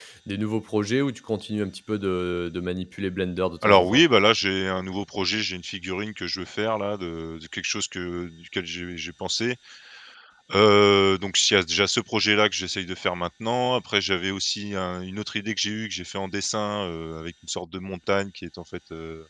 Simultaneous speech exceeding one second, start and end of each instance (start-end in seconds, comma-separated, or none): none